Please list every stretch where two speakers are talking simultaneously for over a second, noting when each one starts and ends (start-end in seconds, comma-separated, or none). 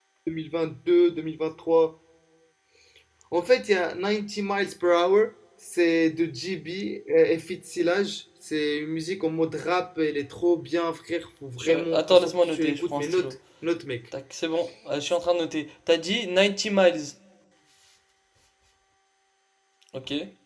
11.6-13.2